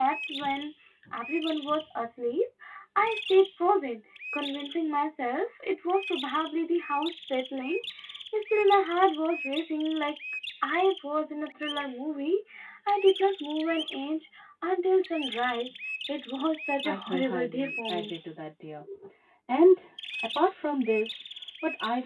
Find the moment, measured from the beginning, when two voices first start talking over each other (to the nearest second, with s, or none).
17 s